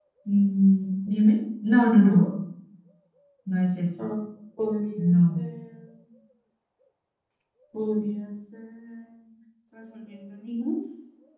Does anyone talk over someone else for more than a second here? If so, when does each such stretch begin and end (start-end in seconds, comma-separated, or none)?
none